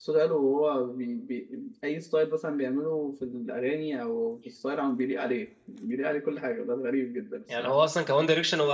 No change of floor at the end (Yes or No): No